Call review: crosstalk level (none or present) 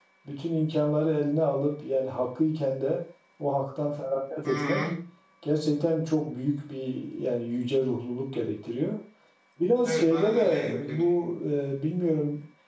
present